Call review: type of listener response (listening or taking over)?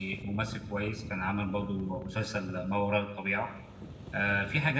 listening